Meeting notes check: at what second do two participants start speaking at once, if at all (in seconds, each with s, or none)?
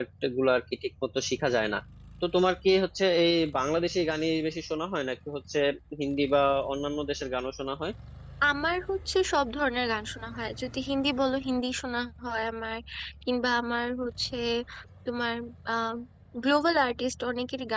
none